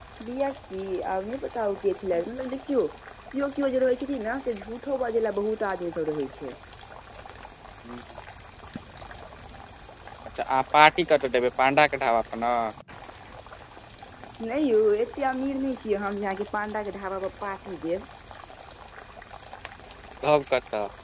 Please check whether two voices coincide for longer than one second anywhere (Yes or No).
No